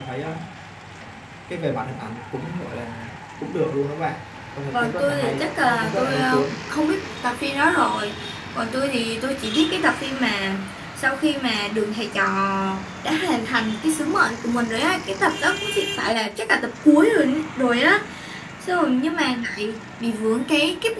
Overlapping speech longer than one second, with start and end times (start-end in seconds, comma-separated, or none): 4.7-6.5